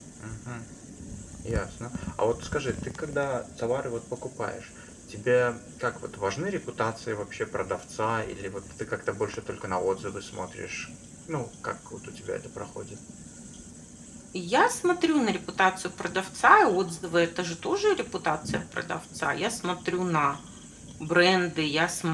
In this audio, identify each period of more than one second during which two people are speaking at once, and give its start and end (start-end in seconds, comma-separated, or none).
none